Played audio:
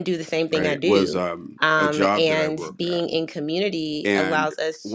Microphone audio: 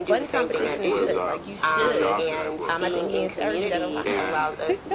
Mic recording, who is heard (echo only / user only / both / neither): both